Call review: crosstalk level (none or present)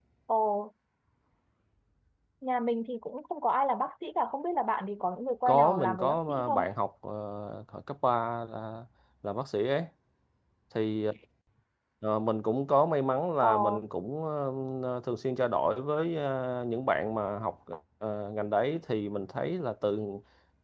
present